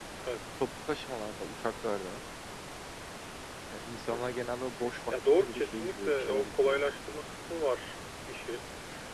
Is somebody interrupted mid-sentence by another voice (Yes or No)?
Yes